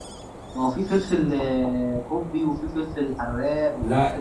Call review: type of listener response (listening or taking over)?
taking over